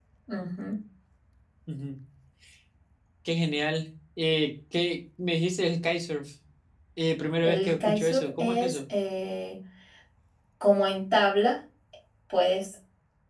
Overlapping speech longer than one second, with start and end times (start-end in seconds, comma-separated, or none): 7.4-8.8